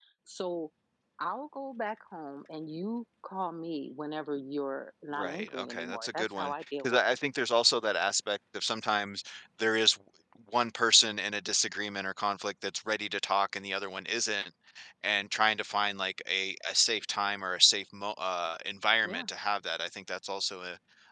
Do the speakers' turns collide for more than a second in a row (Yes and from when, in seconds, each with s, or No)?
Yes, from 5.1 s